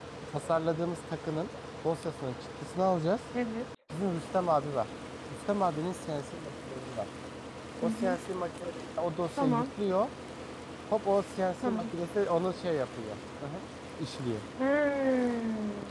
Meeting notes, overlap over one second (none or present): none